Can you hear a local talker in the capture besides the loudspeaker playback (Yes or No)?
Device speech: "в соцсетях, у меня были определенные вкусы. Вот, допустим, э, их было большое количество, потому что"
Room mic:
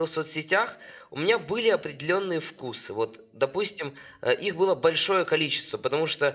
No